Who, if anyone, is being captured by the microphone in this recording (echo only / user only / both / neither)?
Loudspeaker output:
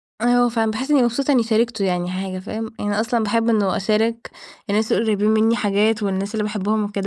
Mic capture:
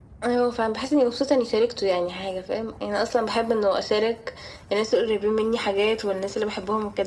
echo only